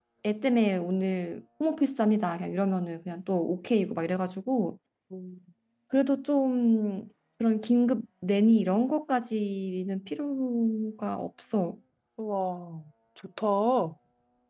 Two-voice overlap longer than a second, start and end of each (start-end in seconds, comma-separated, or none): none